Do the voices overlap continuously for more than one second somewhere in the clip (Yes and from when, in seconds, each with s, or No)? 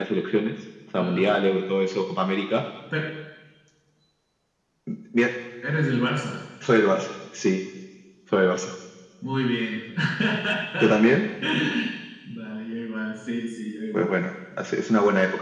No